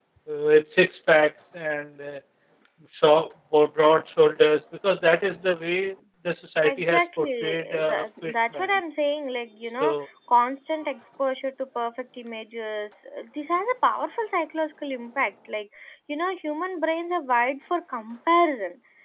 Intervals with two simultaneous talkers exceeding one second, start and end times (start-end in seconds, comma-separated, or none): 6.6-8.7